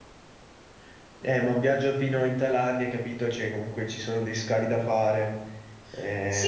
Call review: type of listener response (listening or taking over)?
taking over